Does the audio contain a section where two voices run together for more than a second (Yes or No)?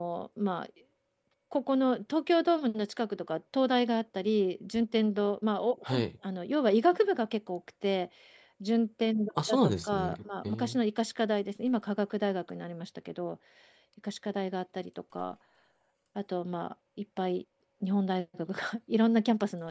Yes